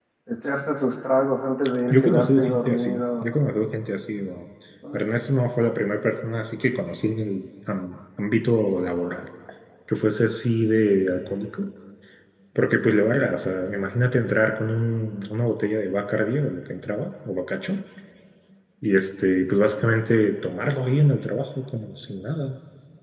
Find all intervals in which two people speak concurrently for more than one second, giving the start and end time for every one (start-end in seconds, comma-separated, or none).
1.9-3.3